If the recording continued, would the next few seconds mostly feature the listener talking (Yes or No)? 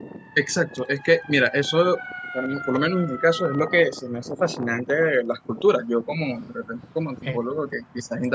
No